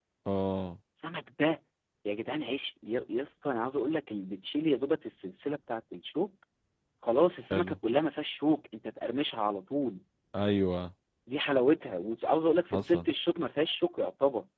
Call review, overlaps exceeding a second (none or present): none